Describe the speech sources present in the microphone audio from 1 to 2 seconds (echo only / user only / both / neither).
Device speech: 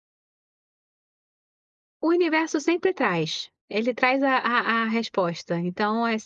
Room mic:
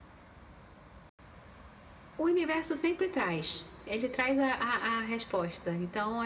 neither